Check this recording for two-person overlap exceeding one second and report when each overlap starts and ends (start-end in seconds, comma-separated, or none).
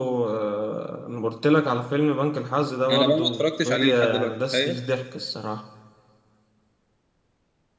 2.9-4.8